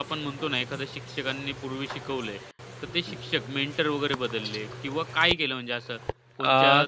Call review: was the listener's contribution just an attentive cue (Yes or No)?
Yes